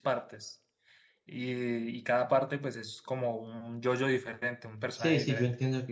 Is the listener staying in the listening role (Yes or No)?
No